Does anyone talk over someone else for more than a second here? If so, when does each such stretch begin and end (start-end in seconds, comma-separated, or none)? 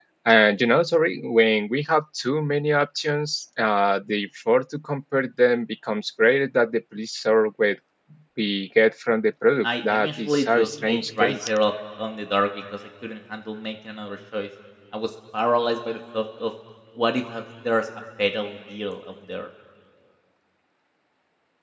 9.6-11.3